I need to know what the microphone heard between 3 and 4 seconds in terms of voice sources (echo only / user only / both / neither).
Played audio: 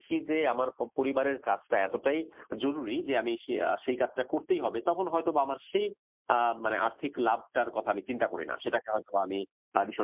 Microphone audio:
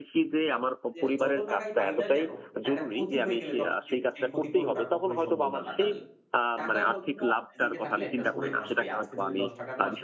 both